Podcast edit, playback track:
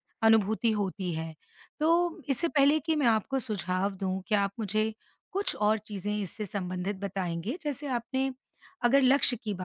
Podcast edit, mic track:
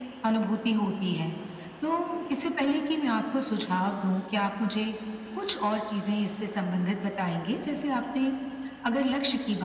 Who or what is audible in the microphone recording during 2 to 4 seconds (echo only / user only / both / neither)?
echo only